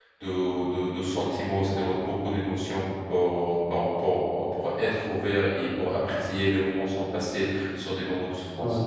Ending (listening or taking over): taking over